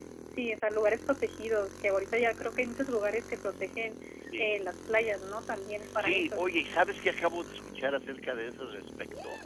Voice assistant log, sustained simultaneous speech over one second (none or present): none